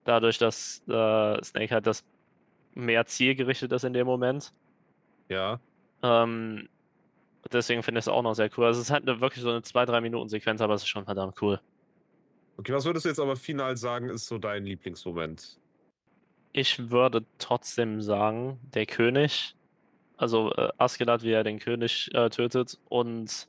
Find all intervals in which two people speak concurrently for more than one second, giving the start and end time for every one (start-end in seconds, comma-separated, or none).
none